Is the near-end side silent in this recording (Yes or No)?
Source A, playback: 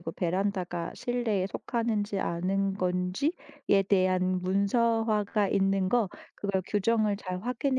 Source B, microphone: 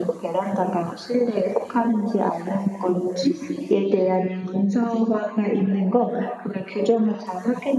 Yes